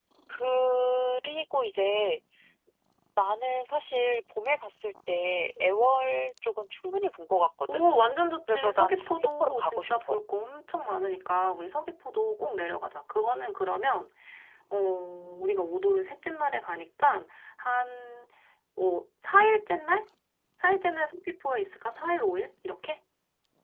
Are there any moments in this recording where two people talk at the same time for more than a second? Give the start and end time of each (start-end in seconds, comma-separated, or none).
8.5-10.2